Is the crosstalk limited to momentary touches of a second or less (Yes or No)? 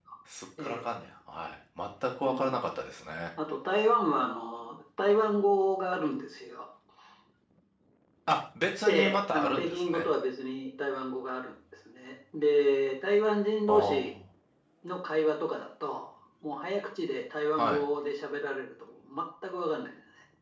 No